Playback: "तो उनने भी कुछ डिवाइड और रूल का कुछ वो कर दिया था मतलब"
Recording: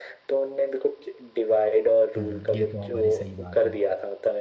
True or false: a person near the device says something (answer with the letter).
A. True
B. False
A